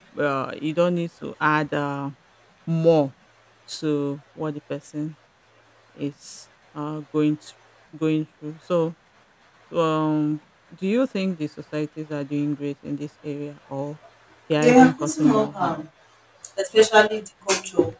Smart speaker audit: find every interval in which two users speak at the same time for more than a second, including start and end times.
14.6-15.8

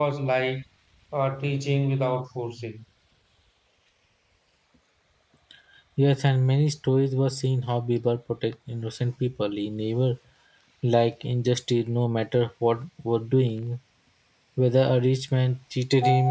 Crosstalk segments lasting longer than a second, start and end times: none

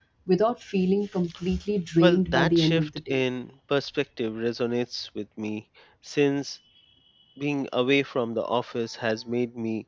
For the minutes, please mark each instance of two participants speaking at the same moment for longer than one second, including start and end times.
2.0-3.2

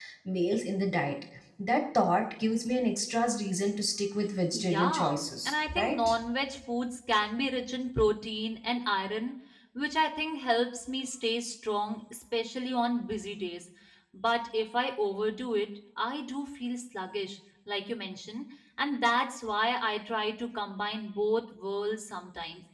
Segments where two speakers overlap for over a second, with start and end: 4.5-6.2

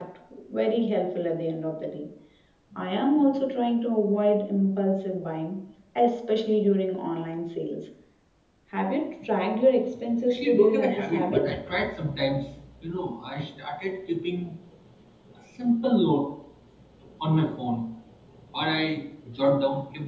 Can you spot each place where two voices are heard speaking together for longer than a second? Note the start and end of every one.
10.3-11.5

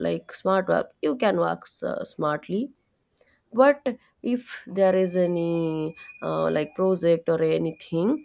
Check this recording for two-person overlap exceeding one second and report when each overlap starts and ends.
none

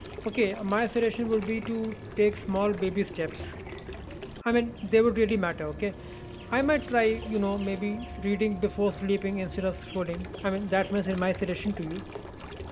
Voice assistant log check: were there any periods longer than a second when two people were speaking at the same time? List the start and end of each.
none

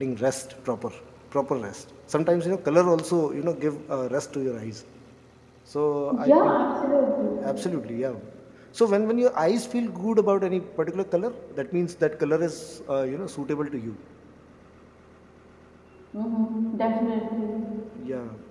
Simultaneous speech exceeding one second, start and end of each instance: none

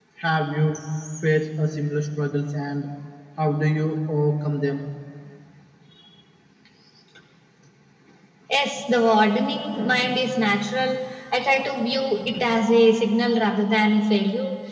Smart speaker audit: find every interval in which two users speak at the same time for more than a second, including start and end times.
none

